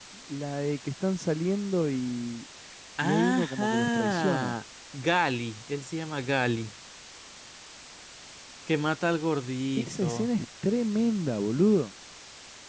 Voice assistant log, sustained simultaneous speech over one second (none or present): present